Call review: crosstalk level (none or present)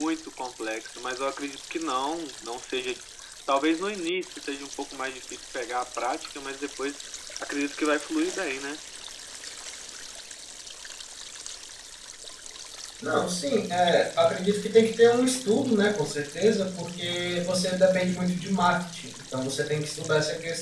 none